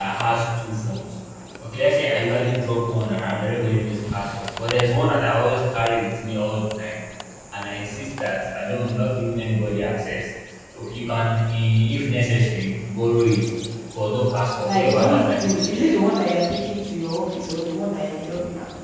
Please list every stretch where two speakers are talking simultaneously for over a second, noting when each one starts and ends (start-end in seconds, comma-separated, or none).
14.6-15.9